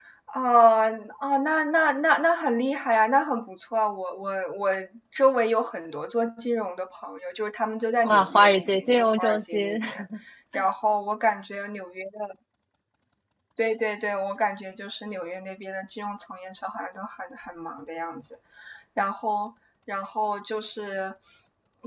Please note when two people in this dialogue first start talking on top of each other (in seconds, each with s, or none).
8.0 s